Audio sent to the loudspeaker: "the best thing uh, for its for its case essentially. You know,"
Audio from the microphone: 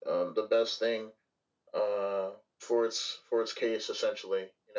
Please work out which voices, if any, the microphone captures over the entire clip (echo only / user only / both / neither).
echo only